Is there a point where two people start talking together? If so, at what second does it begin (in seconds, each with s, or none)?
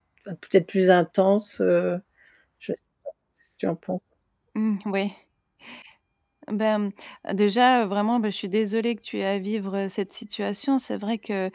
none